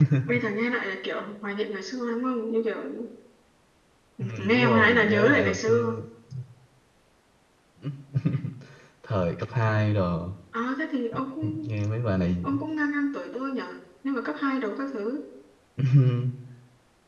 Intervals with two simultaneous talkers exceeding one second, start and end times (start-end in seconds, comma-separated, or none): 4.4-6.0